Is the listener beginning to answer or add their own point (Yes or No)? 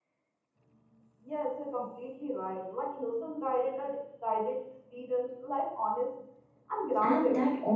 Yes